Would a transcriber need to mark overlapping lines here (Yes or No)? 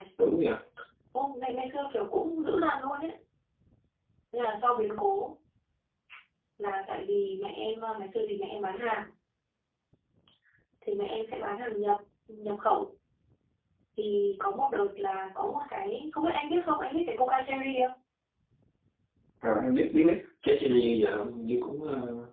No